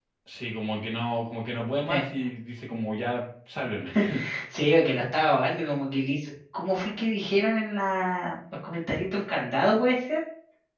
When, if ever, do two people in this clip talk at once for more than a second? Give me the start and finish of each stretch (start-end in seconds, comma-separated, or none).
none